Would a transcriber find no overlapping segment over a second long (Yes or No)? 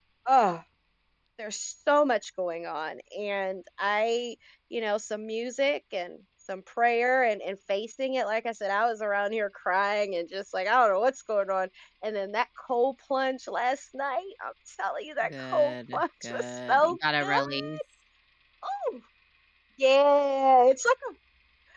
No